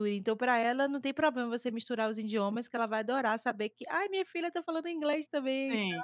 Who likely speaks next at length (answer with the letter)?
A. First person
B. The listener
B